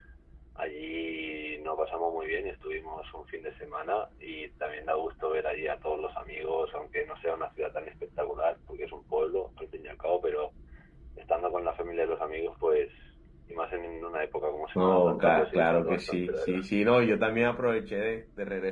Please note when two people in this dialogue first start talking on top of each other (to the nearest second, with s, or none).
15 s